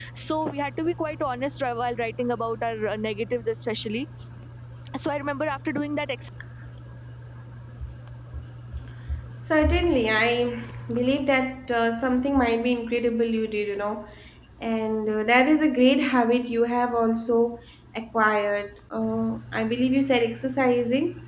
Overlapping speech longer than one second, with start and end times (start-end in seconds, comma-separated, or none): none